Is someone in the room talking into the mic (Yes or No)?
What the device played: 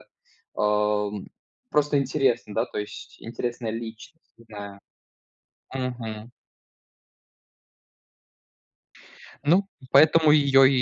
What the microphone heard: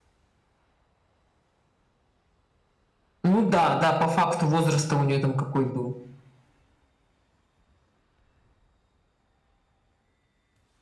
Yes